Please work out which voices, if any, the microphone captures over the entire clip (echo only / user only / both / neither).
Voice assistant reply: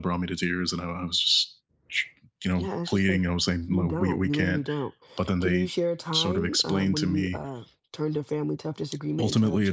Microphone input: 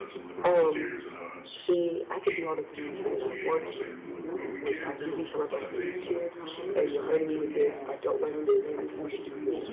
both